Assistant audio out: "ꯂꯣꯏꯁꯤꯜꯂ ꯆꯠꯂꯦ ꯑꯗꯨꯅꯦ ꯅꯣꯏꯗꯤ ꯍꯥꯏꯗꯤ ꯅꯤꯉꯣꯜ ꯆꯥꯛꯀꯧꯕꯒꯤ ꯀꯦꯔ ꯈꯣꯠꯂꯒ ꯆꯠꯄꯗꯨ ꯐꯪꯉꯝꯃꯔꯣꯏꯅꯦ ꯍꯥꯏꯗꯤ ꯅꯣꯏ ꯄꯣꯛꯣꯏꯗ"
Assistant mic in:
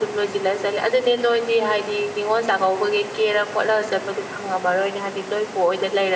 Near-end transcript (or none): none